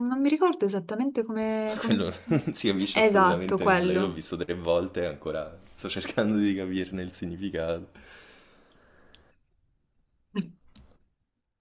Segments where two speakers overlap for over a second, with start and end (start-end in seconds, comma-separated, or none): 2.9-4.2